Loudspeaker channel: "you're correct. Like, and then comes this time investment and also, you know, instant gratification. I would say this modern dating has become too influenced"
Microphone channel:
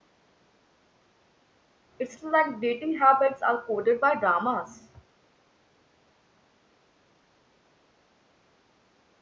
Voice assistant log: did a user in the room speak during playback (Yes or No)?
Yes